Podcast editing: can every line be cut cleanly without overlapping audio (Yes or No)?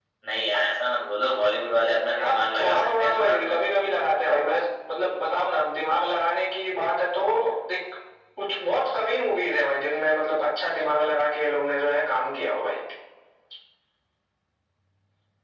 No